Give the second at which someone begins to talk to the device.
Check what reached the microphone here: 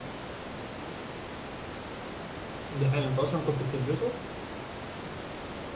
2.7 s

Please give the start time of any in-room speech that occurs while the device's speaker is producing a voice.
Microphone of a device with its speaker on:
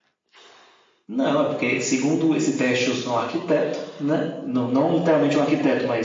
none

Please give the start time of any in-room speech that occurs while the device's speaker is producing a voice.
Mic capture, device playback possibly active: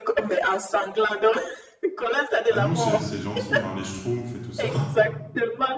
2.5 s

